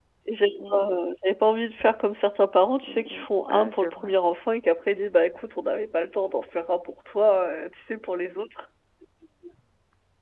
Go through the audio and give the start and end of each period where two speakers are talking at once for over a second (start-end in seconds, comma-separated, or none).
2.9-4.1